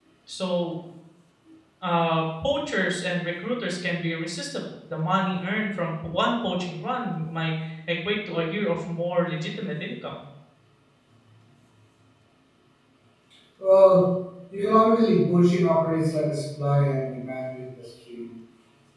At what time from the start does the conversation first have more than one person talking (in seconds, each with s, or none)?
none